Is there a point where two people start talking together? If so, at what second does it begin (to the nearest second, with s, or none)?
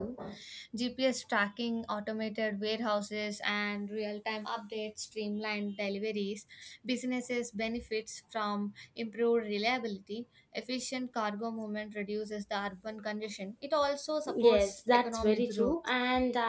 14 s